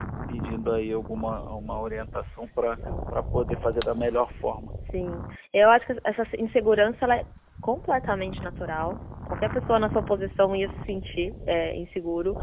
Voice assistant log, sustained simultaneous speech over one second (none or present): none